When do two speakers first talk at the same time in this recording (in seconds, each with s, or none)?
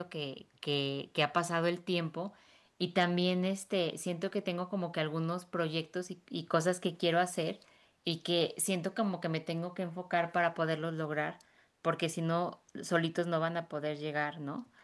none